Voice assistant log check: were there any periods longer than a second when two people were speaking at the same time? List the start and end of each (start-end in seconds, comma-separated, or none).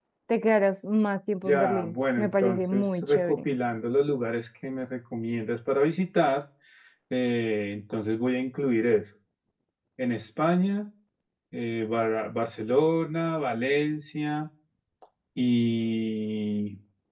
1.4-3.5